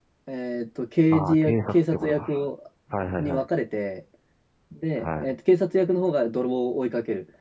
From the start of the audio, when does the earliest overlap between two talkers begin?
1.1 s

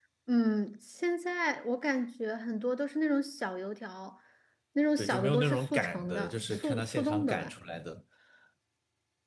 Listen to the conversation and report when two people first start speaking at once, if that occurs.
5.0 s

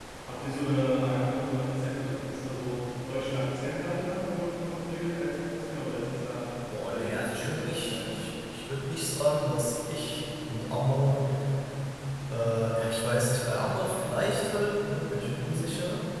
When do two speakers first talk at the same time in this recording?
6.8 s

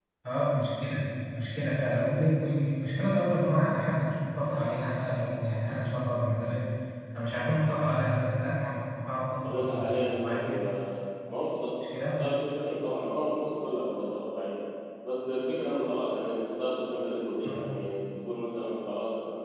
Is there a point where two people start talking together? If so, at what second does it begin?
9.4 s

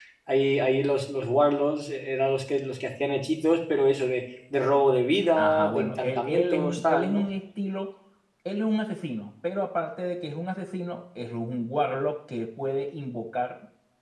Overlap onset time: 5.4 s

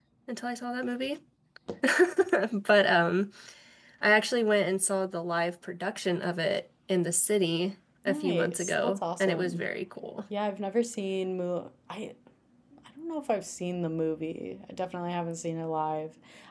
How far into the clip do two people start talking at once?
8.1 s

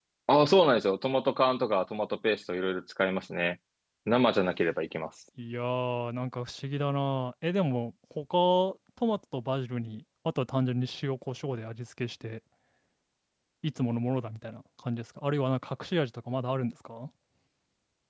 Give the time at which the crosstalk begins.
none

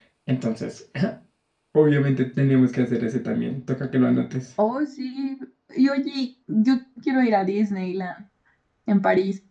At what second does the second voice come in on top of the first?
none

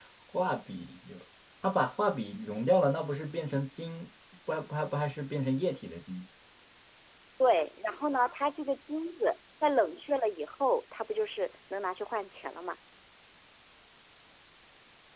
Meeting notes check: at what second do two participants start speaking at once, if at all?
none

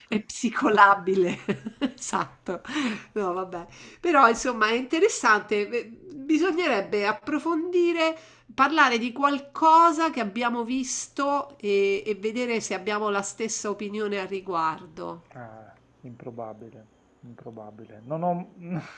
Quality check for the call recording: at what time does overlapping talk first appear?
none

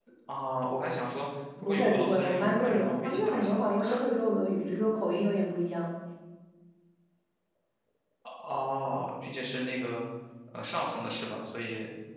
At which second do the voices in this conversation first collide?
1.6 s

